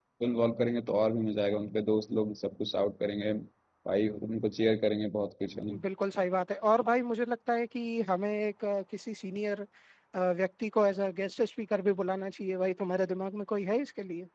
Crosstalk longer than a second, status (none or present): none